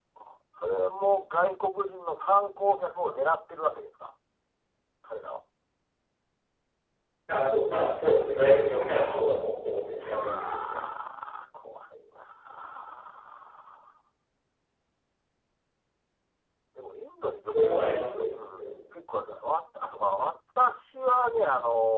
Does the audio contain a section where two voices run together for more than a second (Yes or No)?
Yes